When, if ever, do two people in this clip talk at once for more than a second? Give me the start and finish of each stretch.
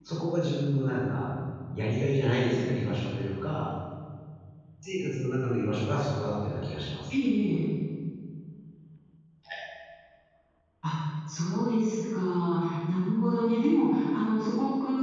none

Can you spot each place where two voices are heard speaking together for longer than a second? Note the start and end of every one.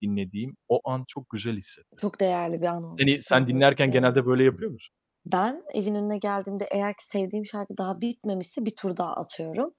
3.0-4.2

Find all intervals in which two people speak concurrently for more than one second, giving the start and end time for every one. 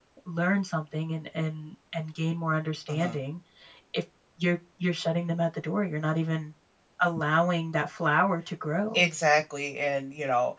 none

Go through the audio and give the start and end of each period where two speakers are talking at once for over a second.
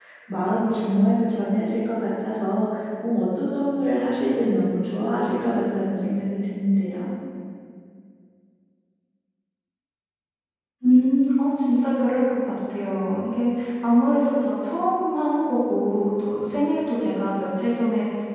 none

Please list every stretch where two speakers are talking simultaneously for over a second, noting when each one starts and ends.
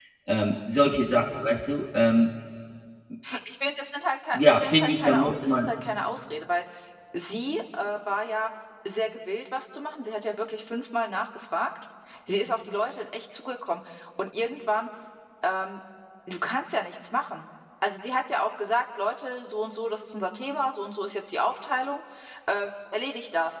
4.3-5.7

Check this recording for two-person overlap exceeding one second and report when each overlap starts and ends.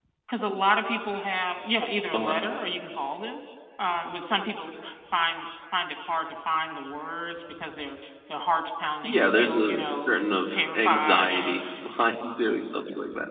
9.0-11.6

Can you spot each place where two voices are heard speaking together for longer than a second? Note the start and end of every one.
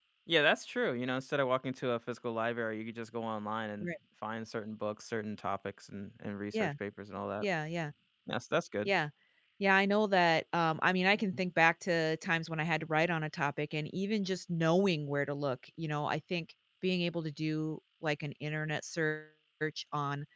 none

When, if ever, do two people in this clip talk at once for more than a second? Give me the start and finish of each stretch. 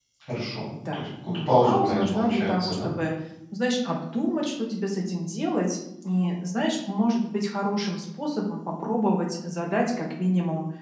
0.9-2.9

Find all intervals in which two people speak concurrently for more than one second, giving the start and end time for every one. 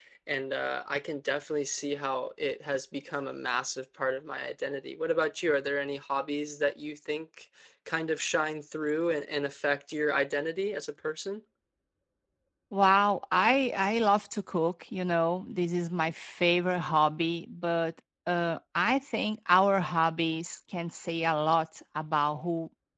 none

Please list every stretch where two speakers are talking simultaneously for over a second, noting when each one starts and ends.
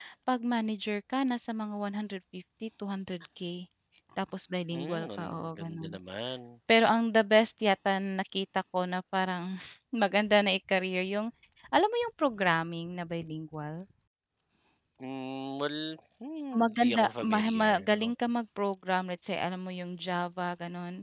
4.7-6.0, 16.6-18.1

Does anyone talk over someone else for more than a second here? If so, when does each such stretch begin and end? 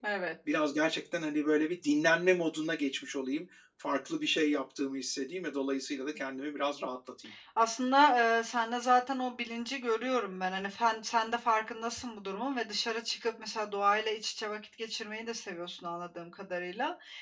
none

